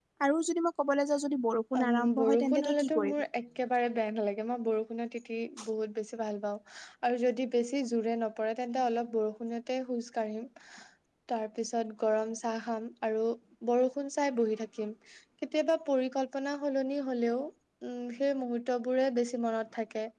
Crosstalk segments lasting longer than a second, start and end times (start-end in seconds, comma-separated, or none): 1.8-3.2